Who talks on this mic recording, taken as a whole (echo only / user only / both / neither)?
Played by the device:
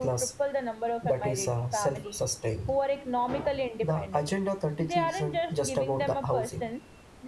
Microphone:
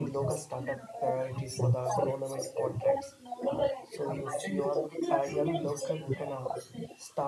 both